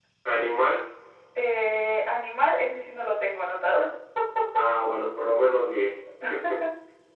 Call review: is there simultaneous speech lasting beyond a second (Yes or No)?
No